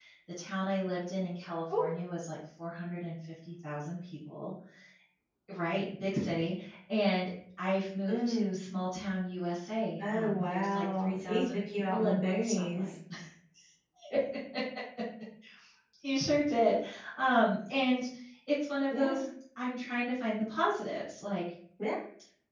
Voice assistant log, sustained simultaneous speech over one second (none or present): present